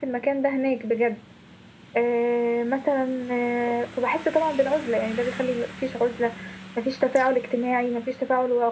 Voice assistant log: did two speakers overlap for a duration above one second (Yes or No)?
No